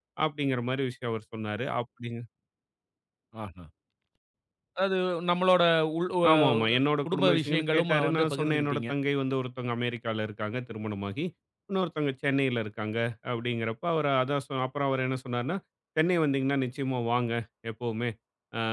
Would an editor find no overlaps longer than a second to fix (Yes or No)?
No